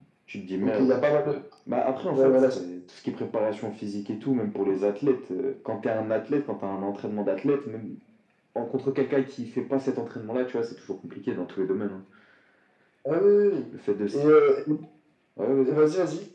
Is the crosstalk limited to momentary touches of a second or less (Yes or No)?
Yes